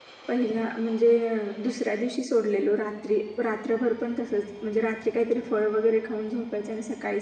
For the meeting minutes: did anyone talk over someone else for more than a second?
No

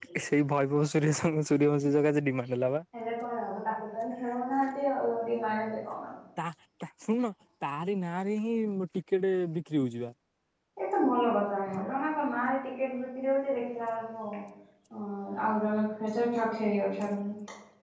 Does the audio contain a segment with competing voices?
No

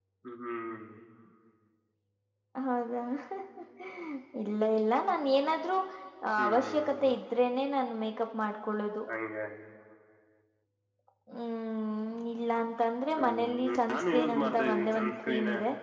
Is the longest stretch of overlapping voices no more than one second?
No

